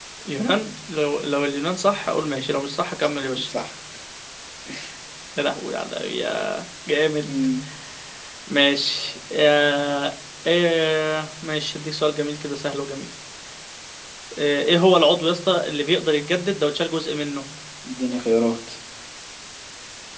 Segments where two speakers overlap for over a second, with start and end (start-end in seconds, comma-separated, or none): none